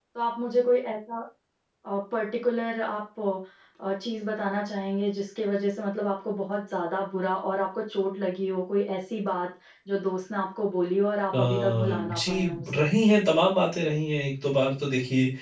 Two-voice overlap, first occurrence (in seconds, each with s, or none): 11.3 s